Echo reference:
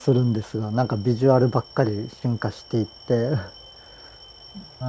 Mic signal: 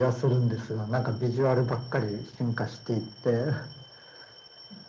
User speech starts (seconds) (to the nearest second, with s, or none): none